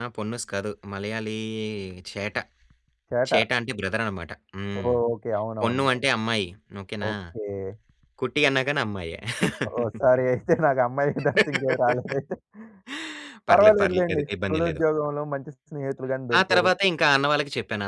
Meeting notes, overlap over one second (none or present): present